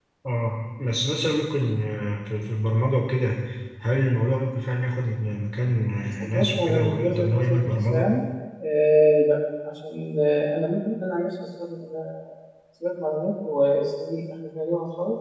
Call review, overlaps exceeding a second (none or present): present